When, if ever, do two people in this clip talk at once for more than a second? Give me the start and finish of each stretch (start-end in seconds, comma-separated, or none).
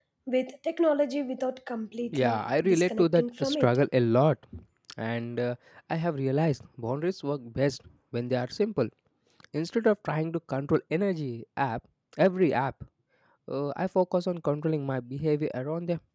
2.1-3.8